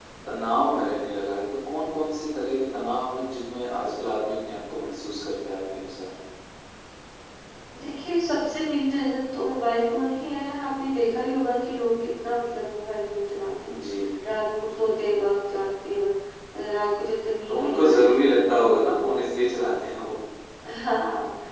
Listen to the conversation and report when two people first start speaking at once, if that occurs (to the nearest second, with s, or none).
17 s